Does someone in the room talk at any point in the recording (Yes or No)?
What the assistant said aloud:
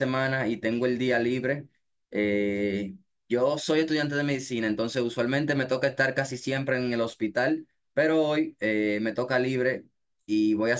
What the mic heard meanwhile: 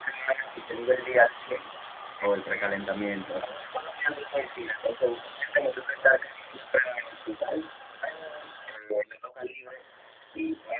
Yes